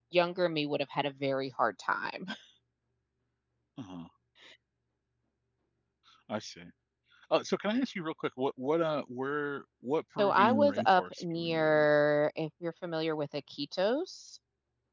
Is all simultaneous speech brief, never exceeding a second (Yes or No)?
No